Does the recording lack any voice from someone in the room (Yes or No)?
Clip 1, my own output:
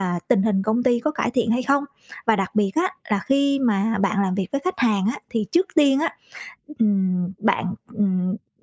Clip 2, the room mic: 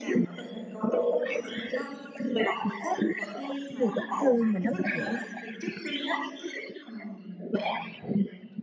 No